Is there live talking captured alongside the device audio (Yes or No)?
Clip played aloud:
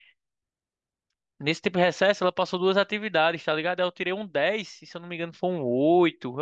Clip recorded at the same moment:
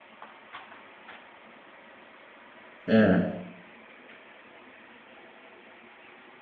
Yes